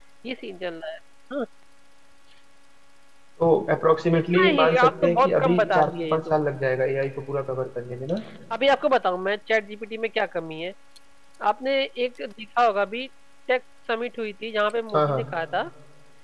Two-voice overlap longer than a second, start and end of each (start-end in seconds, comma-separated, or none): 4.4-6.4